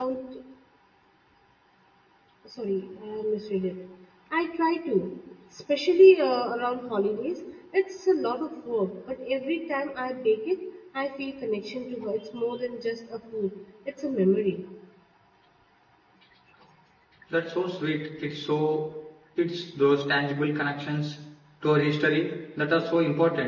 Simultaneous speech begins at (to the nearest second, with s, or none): none